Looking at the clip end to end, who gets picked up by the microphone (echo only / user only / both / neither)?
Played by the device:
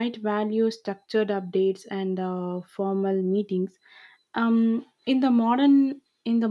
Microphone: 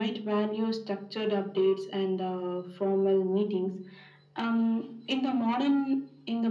echo only